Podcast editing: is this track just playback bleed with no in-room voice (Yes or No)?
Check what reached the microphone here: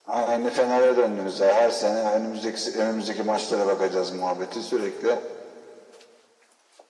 Yes